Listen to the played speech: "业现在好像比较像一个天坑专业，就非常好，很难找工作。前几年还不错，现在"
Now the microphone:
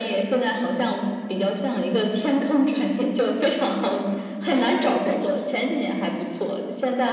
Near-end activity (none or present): present